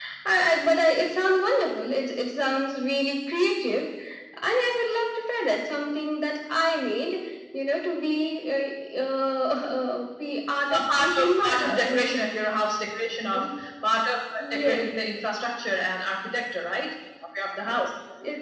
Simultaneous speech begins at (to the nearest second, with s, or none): 11 s